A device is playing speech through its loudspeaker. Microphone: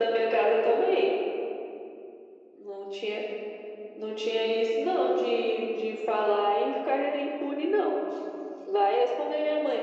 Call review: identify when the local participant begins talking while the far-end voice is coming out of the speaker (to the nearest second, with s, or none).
none